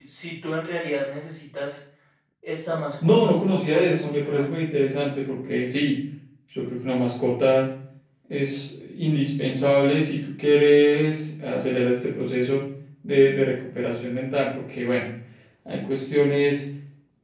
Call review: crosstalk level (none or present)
present